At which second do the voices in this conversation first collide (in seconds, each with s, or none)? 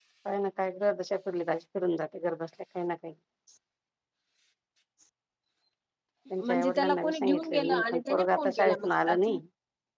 6.4 s